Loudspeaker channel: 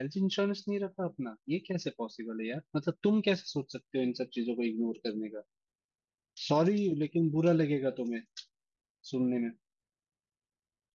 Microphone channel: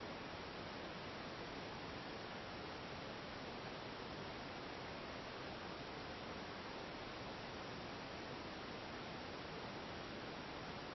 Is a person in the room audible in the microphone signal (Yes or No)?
No